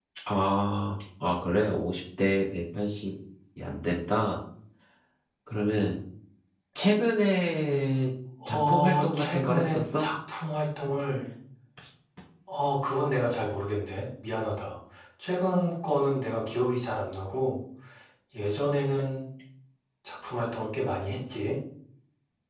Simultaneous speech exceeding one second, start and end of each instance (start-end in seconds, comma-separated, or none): 8.4-10.1